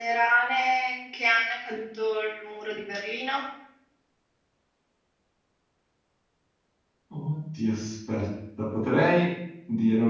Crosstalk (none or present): none